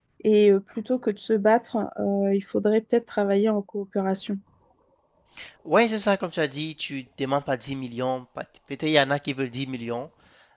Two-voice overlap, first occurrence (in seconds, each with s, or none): none